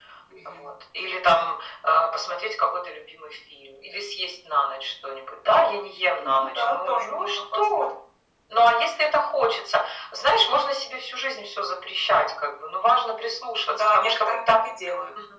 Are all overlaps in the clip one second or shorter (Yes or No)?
No